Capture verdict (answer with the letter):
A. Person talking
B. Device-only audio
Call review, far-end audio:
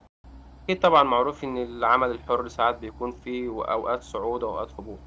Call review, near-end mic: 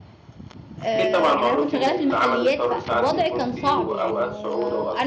A